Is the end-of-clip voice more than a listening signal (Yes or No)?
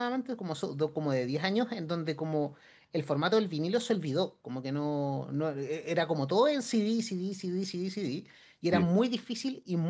No